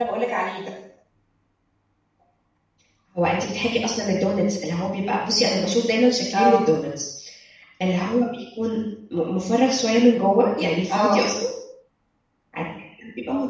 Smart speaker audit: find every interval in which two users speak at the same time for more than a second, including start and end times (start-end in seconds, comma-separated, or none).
none